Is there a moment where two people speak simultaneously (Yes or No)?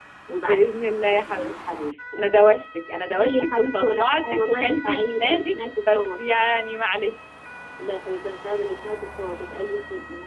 Yes